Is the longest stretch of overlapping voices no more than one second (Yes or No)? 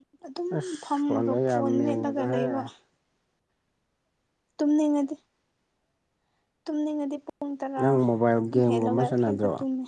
No